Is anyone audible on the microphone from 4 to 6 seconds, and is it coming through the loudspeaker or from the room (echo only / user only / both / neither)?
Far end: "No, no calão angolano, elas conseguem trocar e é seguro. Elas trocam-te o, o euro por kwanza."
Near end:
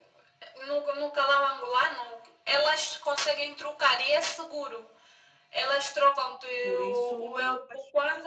echo only